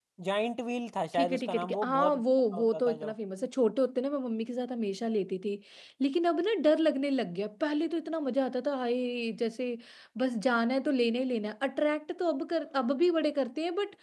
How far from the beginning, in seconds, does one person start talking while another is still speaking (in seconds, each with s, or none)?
1.1 s